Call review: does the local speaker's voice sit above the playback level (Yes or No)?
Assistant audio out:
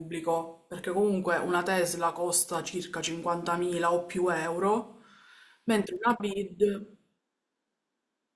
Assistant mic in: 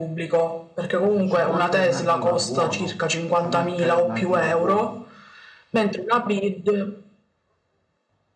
No